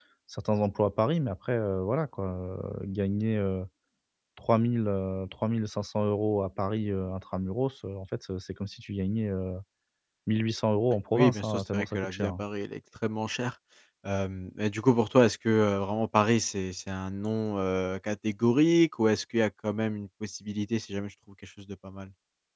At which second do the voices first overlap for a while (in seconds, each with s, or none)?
11.1 s